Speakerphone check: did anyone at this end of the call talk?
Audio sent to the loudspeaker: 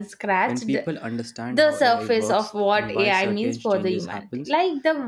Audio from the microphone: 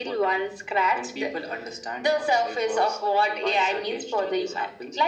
No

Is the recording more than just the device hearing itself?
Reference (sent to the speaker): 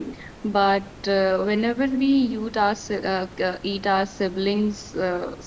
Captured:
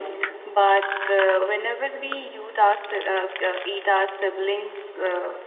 No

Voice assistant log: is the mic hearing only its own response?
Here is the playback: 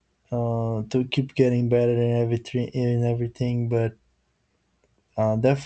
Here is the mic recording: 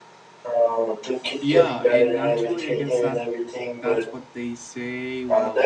No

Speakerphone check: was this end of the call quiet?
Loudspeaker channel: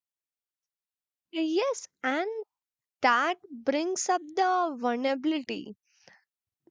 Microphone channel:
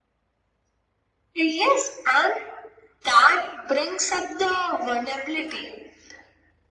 Yes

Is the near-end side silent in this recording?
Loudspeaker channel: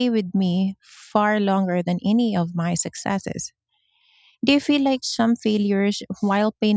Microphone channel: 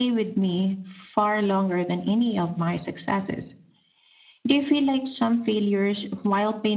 Yes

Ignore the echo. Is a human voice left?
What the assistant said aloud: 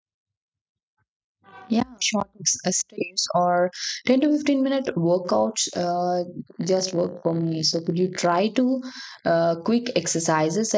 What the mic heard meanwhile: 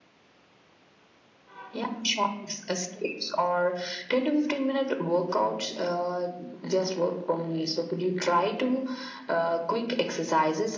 No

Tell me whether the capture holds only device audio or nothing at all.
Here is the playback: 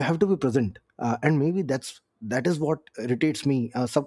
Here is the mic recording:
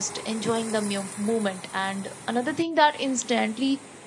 No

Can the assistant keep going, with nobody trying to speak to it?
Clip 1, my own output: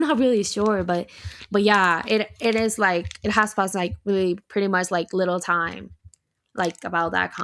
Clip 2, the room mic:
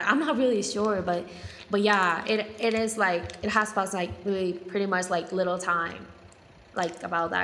Yes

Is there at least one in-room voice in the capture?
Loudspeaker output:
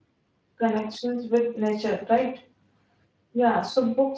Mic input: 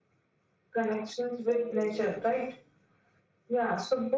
Yes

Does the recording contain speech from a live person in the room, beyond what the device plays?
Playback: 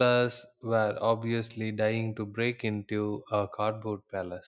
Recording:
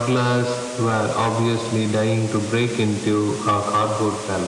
No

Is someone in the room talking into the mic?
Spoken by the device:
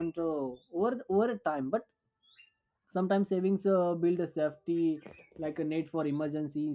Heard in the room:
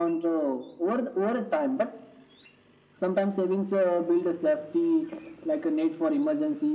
No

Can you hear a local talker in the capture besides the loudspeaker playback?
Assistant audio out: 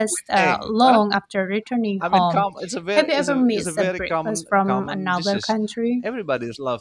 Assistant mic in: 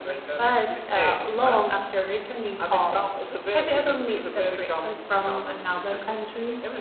No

